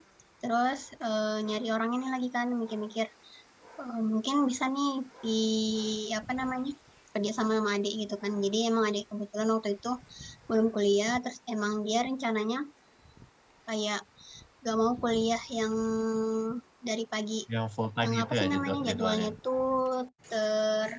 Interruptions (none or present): present